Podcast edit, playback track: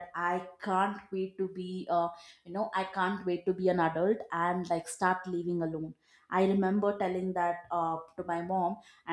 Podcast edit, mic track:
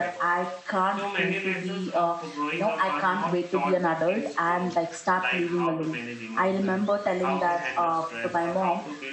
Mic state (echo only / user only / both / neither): both